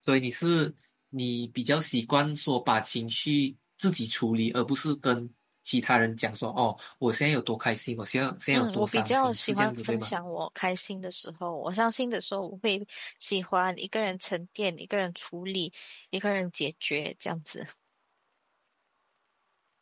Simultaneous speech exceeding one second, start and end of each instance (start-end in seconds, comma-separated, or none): 8.5-10.1